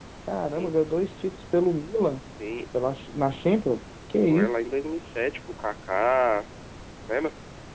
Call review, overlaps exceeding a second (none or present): none